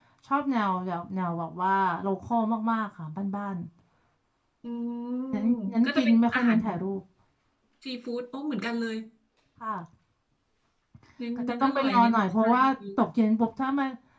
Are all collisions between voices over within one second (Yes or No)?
No